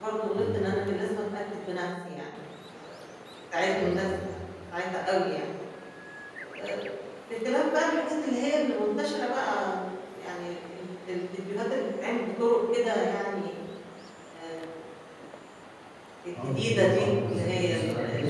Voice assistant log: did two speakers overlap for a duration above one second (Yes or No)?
Yes